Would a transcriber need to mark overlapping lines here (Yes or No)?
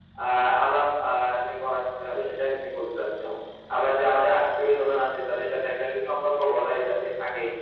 No